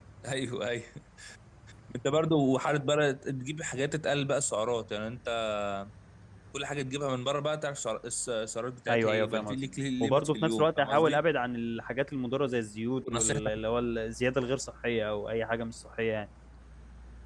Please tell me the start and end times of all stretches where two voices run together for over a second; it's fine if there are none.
8.9-11.2

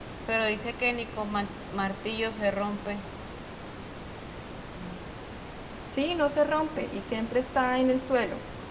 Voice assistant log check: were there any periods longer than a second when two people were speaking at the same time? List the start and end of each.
none

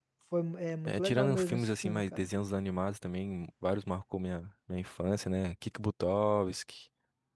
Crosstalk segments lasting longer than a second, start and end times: 0.9-2.3

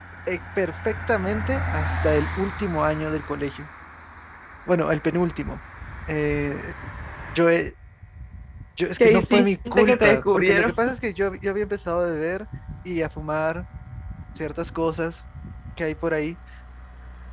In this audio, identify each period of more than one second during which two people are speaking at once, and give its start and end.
9.0-10.7

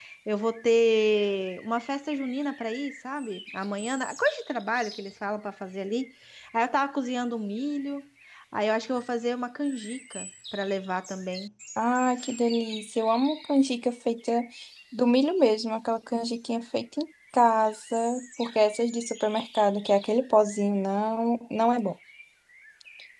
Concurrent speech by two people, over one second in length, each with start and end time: none

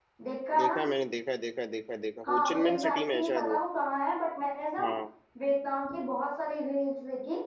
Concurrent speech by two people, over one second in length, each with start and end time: 2.3-3.6

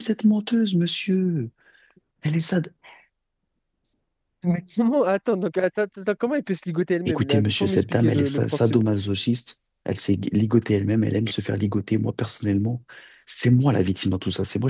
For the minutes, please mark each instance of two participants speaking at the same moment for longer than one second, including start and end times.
7.1-8.8

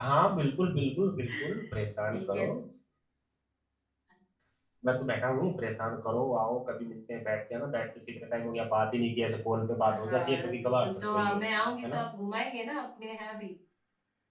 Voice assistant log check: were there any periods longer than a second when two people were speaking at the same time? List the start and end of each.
10.0-12.0

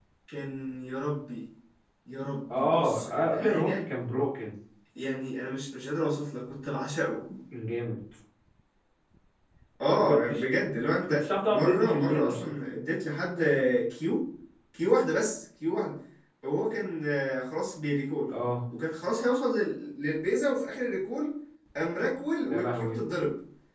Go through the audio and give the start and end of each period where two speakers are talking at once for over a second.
2.5-3.9, 11.1-12.5

